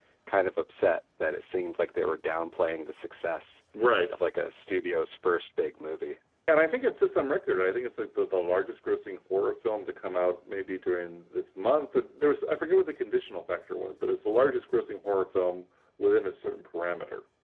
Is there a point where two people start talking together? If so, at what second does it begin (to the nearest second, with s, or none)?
none